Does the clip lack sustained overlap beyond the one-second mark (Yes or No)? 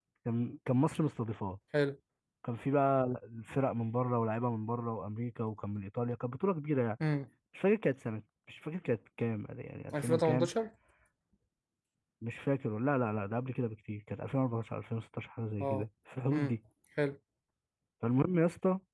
Yes